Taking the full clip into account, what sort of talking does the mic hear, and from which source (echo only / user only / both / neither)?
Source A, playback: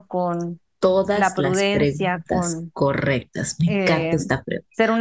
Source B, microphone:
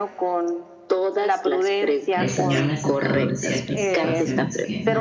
both